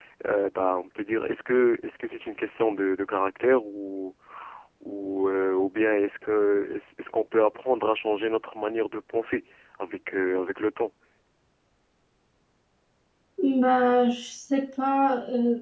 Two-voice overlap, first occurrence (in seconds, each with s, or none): none